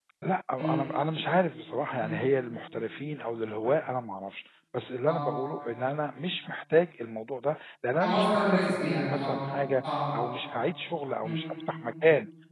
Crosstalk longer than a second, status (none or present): present